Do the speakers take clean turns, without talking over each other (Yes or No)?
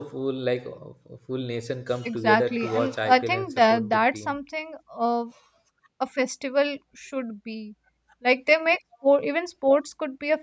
No